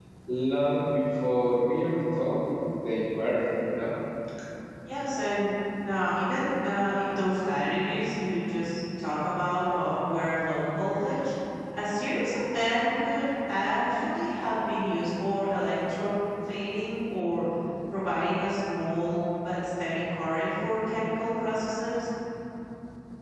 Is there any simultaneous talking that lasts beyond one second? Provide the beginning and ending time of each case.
none

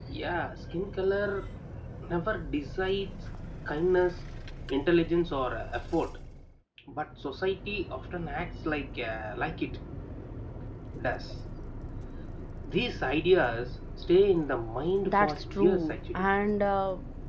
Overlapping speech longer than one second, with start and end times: 15.1-16.2

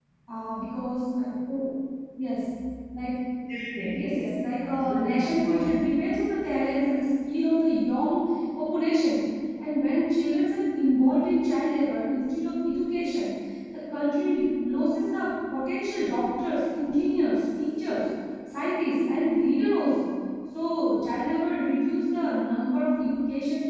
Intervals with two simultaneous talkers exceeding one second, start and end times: 3.9-5.7

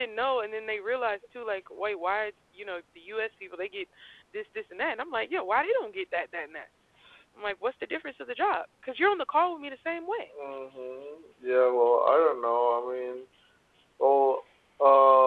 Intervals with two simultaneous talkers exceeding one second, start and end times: none

